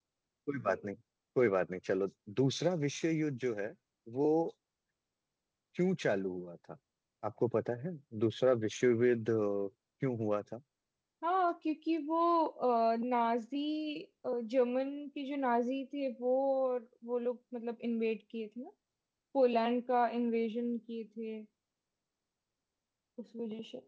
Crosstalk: none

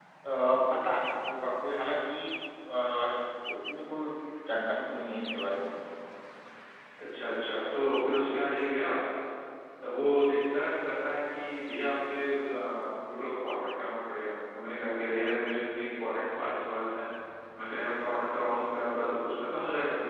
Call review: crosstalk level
none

